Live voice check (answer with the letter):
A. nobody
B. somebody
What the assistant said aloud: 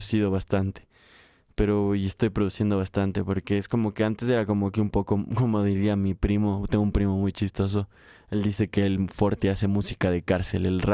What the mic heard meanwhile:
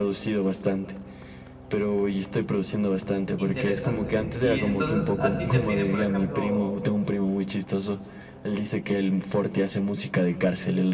B